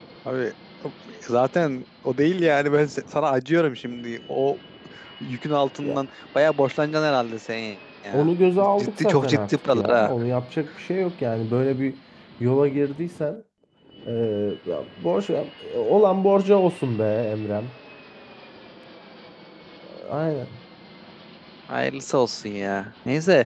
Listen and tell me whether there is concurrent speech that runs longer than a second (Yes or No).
Yes